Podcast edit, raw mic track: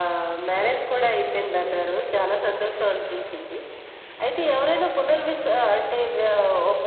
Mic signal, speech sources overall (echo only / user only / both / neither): echo only